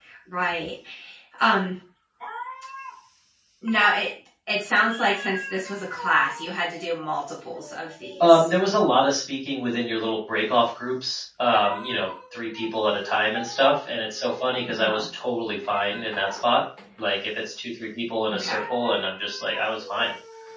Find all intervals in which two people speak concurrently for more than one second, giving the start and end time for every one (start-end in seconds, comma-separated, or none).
none